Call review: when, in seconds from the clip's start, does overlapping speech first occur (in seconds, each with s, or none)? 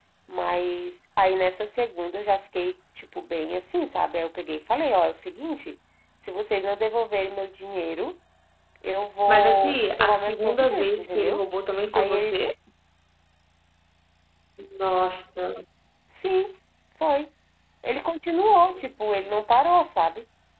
9.3 s